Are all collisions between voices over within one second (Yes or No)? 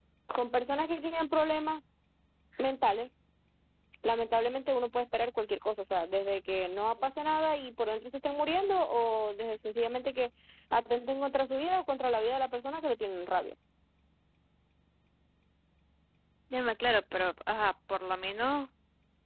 Yes